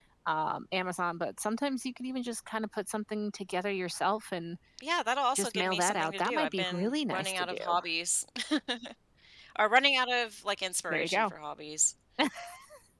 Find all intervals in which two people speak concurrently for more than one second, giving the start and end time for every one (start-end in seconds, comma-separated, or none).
5.3-7.8